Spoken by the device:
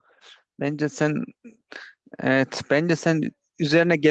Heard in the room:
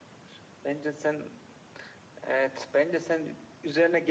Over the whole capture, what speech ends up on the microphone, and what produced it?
echo only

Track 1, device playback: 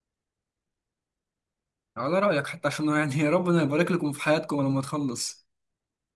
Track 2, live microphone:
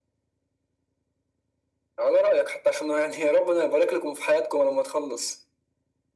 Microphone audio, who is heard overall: echo only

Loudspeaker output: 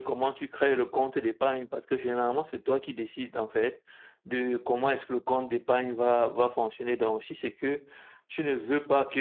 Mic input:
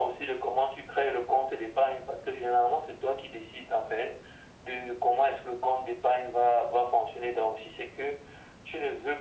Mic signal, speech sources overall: echo only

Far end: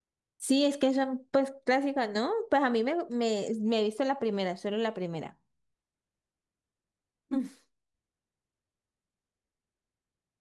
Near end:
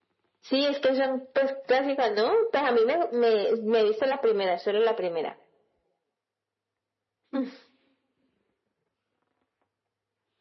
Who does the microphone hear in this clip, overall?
echo only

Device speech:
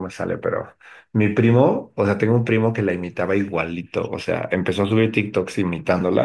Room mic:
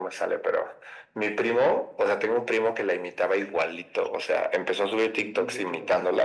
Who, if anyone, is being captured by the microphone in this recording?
both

